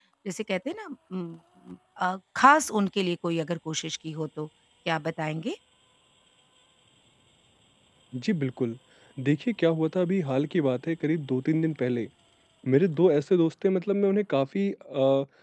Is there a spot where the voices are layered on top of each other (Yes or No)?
No